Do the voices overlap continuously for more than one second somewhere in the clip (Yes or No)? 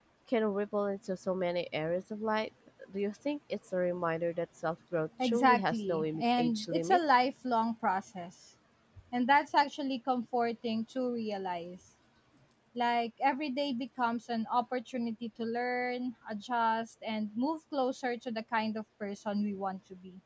Yes